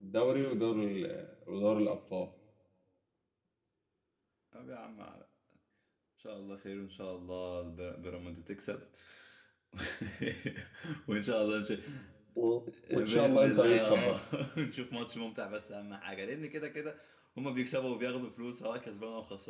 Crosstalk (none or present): present